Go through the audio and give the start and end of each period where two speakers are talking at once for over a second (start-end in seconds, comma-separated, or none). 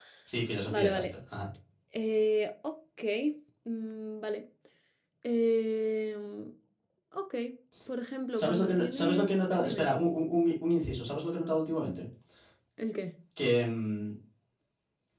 8.4-9.9